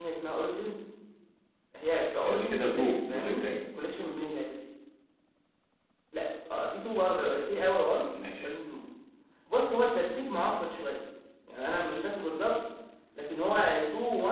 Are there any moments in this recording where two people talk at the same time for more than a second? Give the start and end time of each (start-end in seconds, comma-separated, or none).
2.2-3.4